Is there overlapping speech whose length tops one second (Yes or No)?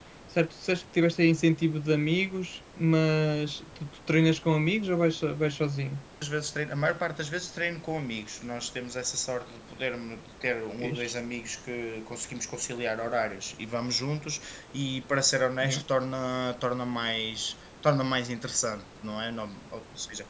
No